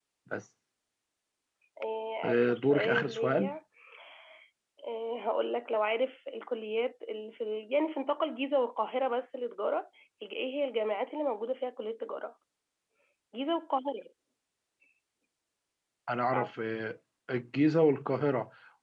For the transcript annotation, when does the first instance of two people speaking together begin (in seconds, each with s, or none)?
2.2 s